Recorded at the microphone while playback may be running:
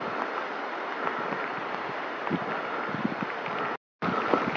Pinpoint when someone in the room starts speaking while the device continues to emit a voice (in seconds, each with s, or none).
none